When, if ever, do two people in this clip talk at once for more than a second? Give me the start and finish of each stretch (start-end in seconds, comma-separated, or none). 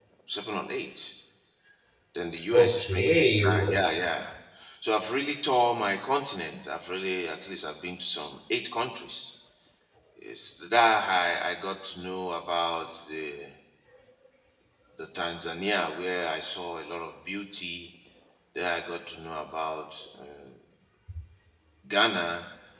2.5-4.0